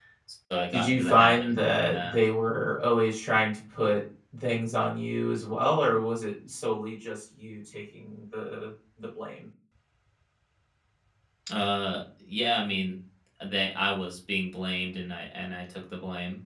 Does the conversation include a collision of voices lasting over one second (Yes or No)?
Yes